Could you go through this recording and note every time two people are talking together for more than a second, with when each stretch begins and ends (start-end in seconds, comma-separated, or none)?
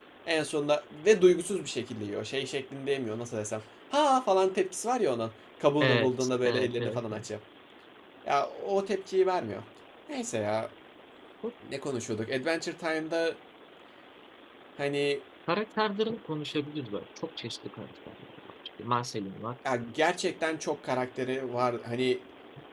5.8-7.2